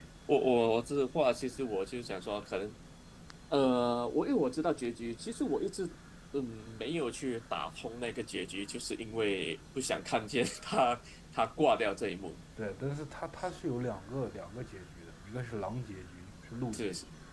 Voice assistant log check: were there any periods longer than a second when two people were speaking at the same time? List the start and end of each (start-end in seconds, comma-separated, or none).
none